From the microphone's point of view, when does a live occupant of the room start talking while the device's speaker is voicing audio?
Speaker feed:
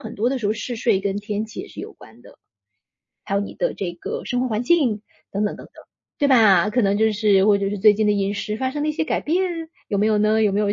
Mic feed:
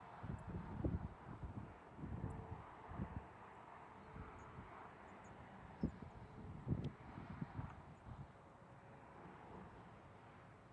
none

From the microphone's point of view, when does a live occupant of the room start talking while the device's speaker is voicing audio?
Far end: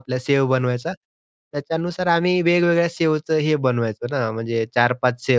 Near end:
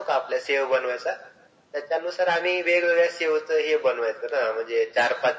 none

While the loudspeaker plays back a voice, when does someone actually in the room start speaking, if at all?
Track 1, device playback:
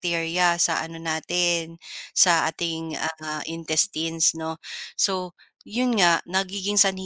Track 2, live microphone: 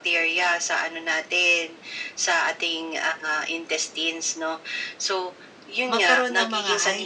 6 s

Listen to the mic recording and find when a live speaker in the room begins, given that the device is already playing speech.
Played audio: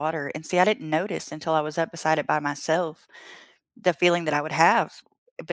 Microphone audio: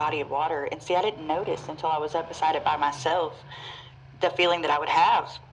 none

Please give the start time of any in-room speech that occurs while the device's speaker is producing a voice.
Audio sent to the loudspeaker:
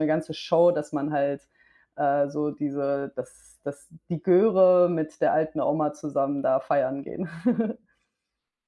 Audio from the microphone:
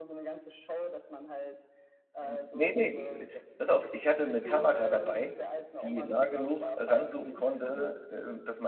2 s

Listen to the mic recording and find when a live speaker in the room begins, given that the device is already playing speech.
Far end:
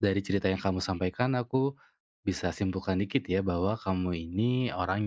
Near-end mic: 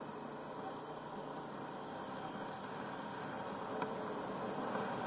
none

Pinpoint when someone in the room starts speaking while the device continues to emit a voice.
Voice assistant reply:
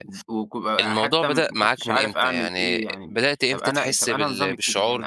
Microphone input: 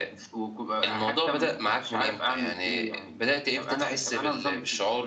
none

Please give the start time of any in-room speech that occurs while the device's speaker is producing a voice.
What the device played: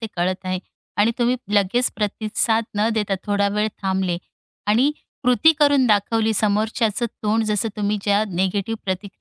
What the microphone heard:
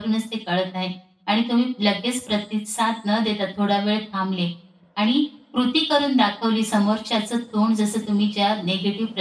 none

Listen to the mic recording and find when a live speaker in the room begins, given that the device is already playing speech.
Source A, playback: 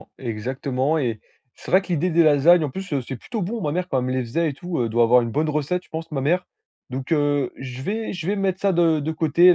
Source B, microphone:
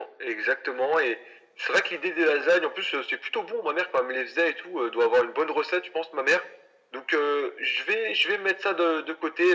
none

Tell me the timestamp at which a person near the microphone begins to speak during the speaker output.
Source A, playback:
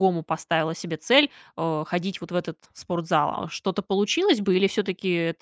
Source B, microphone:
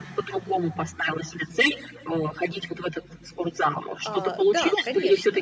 4 s

